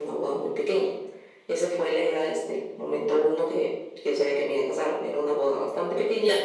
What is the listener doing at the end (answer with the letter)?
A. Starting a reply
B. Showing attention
B